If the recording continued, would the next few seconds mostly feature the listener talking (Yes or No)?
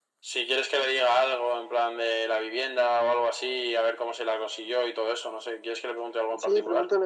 Yes